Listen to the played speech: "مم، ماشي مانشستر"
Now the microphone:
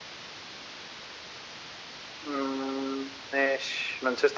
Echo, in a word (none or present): present